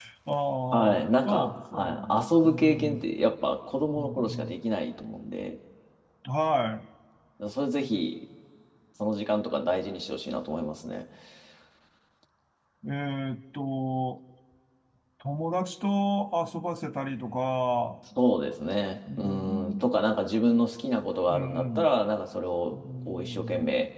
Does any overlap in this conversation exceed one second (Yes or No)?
Yes